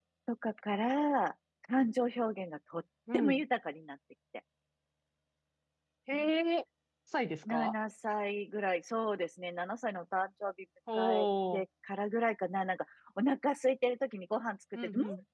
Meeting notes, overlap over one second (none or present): none